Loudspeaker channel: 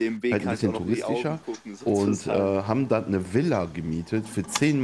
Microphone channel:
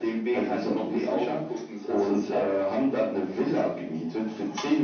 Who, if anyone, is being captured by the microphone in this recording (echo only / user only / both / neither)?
echo only